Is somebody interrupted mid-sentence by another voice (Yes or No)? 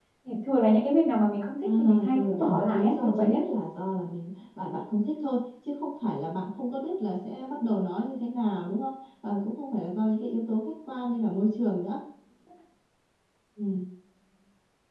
Yes